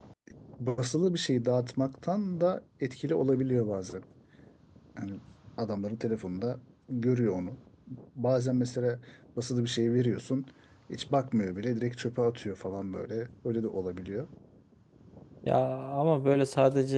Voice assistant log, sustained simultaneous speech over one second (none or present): none